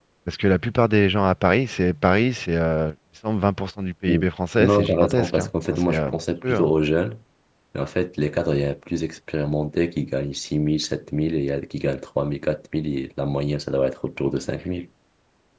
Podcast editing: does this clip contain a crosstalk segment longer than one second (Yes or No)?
Yes